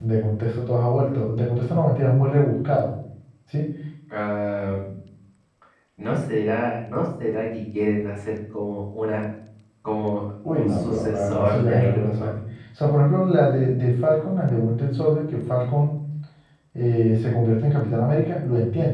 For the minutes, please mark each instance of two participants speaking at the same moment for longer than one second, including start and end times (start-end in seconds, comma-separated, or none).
10.5-12.4